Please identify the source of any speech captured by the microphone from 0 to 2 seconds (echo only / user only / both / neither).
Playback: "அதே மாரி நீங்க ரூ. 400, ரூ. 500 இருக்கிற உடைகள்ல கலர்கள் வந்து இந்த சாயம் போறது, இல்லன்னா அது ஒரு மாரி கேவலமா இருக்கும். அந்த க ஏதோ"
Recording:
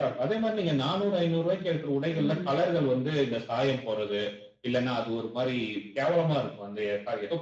echo only